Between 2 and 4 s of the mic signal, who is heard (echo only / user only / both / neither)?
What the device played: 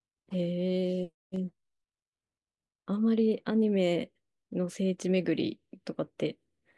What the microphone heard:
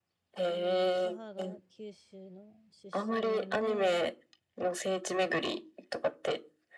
both